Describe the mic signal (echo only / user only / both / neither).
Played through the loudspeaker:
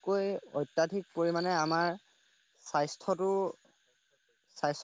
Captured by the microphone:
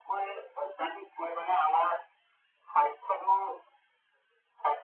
echo only